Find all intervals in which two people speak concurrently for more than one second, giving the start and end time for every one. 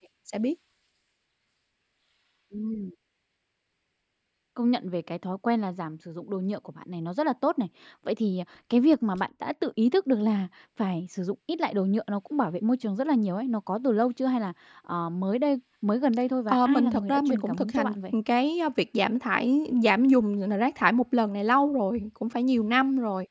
16.5-18.0

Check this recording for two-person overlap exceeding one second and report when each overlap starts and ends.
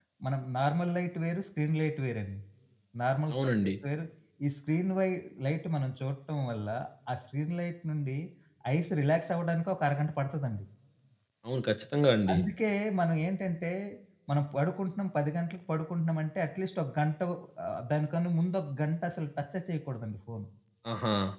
none

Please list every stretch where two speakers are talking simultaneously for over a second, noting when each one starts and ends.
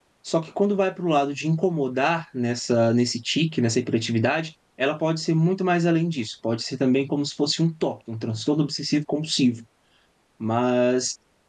none

